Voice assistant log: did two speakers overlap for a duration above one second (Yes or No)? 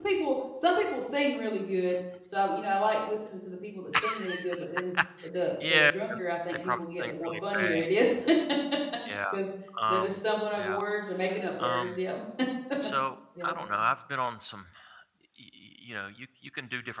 Yes